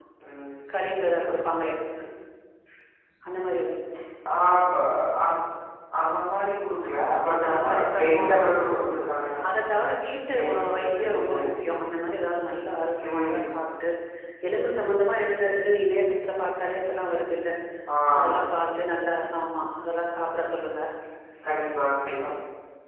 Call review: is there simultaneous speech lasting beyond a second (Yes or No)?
Yes